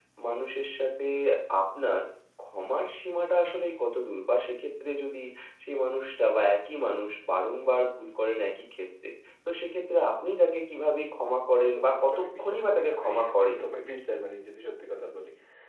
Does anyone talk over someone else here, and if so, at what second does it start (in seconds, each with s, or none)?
11.7 s